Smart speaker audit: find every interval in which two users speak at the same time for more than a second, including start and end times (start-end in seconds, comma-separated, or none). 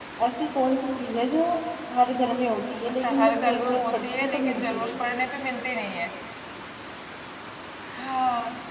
3.0-5.1